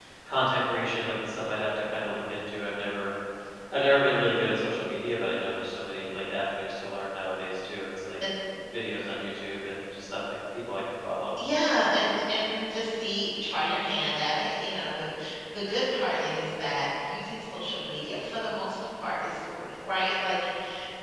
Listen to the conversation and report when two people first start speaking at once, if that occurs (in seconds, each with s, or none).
none